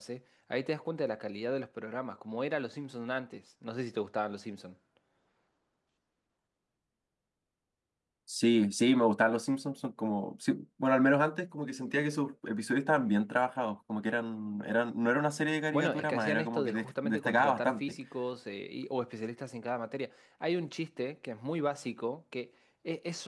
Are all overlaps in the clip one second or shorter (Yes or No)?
No